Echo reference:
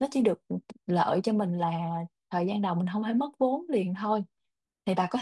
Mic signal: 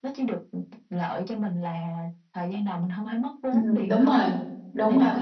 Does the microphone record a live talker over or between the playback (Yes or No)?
Yes